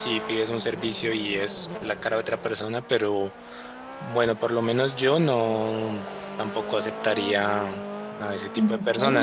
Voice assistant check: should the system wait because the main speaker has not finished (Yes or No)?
Yes